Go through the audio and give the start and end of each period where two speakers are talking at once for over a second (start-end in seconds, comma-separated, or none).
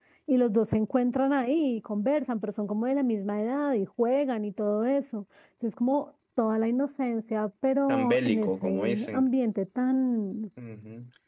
7.9-9.2